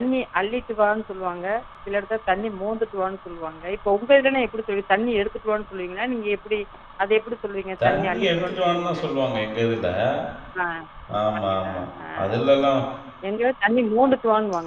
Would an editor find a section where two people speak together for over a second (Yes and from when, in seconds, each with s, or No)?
Yes, from 7.8 s